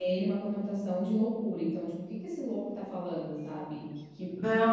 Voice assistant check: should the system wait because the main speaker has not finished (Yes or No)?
No